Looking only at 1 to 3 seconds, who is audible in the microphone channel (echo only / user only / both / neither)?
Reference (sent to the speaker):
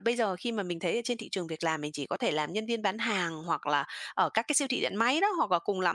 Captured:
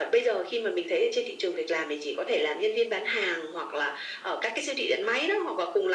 echo only